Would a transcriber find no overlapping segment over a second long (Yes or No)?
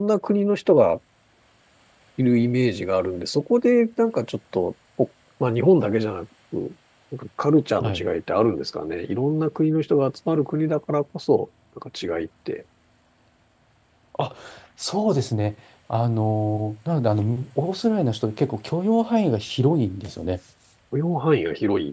Yes